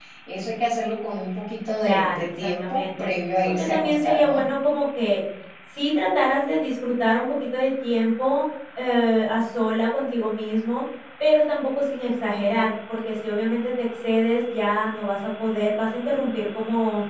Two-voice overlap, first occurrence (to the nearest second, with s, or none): 2 s